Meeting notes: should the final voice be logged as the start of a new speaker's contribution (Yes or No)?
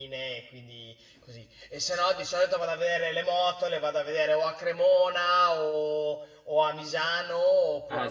Yes